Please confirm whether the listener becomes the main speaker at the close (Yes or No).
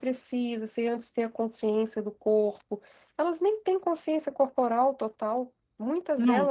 Yes